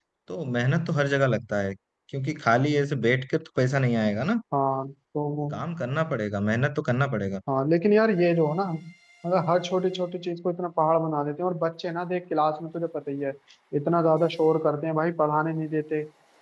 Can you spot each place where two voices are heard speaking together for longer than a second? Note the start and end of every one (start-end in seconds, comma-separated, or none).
none